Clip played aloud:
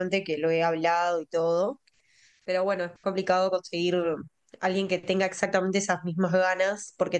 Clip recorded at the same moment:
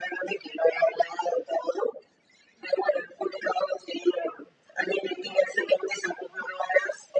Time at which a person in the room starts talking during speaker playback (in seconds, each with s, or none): none